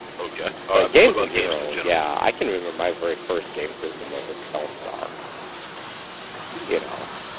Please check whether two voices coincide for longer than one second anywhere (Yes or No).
Yes